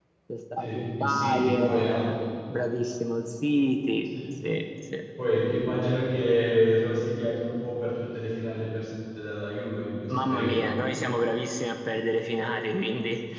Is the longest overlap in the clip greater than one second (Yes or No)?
Yes